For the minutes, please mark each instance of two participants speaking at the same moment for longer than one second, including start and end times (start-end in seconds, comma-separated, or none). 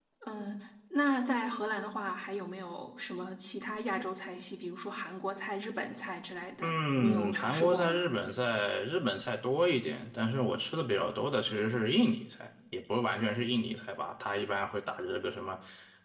6.6-8.0